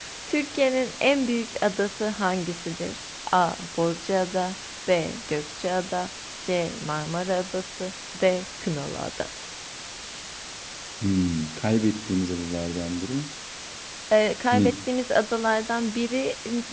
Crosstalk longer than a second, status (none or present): none